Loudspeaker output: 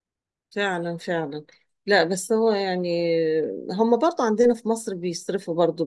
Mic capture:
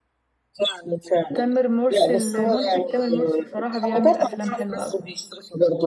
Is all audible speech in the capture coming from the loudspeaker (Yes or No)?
No